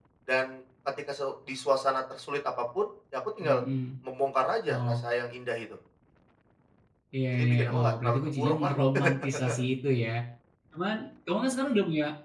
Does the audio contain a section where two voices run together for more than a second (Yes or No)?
Yes